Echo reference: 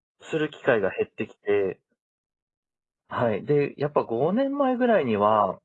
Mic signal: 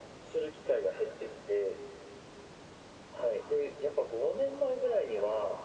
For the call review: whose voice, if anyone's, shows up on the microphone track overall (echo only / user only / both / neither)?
echo only